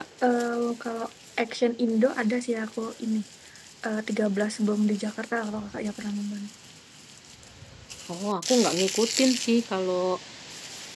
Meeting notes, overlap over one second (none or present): none